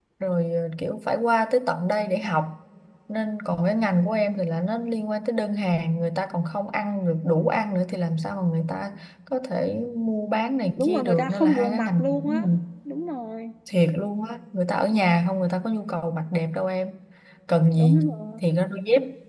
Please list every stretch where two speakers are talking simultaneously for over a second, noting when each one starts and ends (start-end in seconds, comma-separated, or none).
10.8-12.5